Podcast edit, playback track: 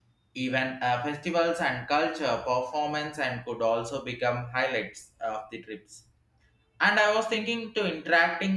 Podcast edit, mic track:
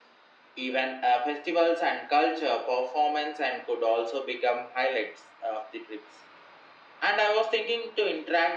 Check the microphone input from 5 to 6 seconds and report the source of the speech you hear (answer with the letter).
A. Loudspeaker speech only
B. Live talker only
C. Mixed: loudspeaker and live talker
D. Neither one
A